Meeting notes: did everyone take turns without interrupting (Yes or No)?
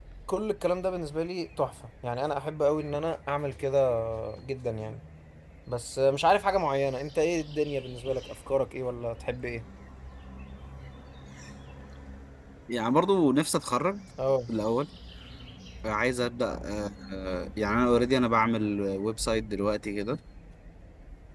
Yes